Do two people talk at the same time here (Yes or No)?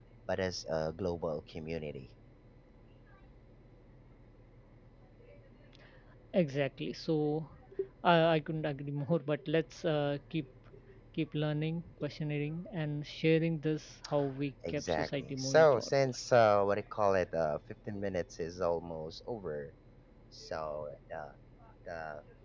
Yes